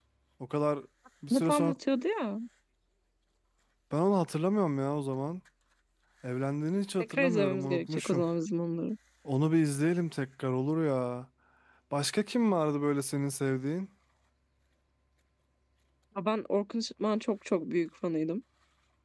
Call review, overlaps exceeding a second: present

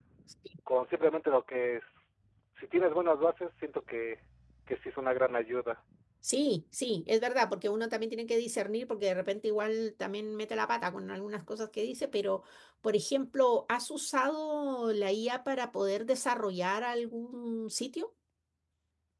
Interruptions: none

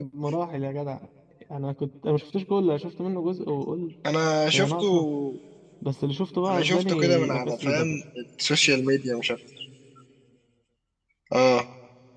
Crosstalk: present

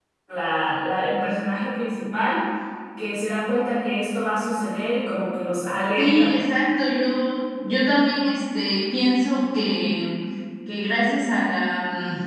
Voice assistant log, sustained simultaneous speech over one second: none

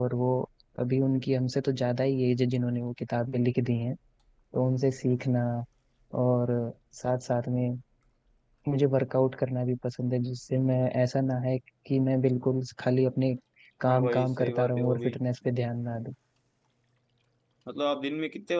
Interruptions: present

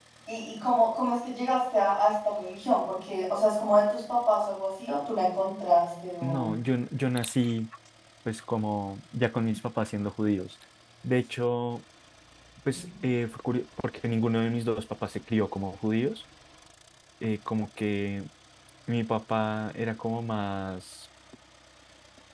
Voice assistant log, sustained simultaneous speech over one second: none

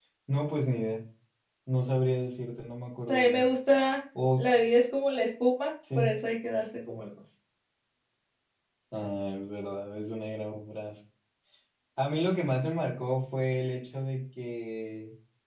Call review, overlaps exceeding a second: none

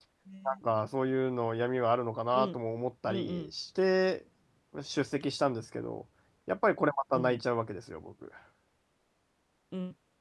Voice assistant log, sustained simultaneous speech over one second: none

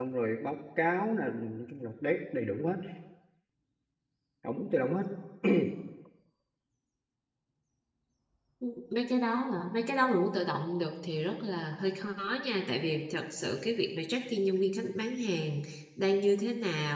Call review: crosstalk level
none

